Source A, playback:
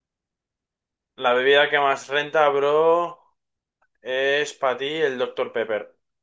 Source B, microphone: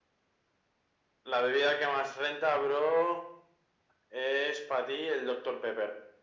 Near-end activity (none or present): none